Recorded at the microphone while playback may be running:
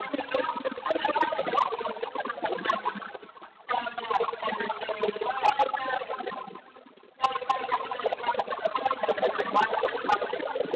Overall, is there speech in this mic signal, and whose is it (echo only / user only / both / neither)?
echo only